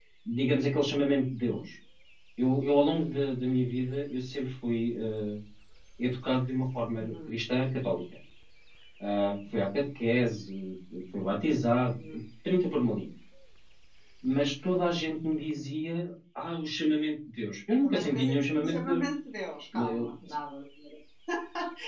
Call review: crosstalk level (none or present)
present